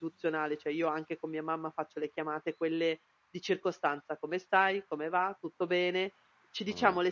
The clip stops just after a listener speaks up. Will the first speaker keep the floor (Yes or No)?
Yes